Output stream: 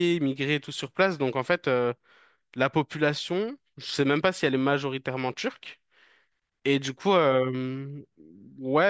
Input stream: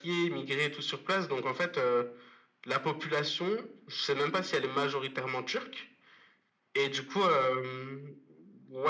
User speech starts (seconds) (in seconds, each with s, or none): none